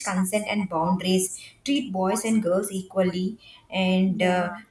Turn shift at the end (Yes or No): No